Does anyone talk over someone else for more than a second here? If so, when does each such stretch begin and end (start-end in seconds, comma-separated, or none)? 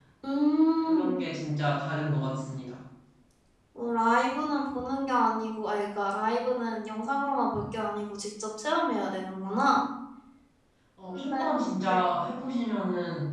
none